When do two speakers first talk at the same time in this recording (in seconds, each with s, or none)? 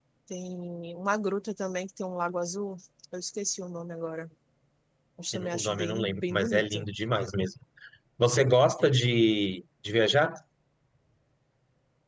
5.3 s